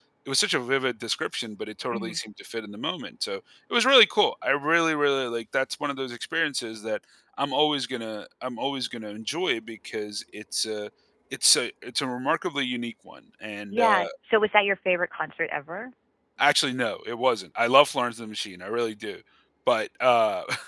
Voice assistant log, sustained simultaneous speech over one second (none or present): none